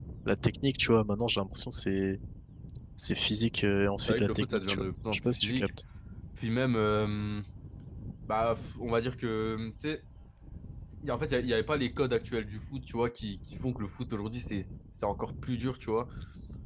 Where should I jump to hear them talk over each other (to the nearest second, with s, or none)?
4 s